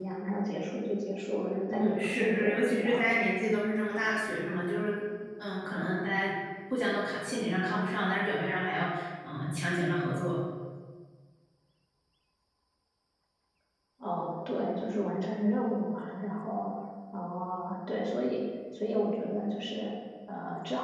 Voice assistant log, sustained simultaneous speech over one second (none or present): present